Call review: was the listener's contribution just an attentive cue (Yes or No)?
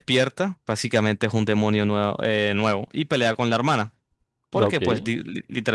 Yes